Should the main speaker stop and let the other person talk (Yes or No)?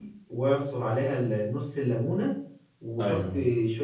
No